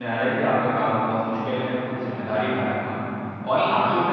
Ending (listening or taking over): listening